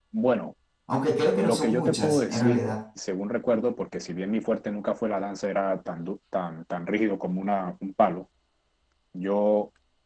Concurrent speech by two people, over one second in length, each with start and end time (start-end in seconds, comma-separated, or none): 1.4-2.6